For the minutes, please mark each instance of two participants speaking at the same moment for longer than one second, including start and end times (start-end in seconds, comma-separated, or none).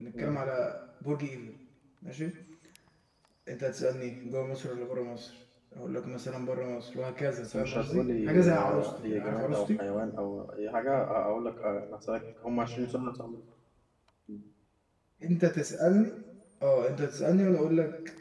7.4-9.6